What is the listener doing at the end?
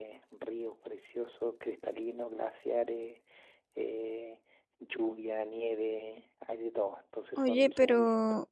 taking over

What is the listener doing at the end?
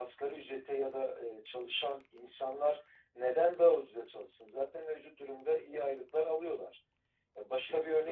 listening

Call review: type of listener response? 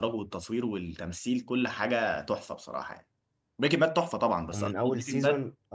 taking over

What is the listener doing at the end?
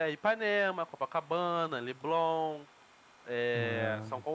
listening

